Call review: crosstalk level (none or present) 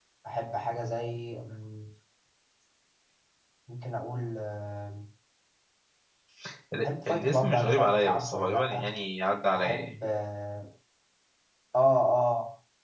present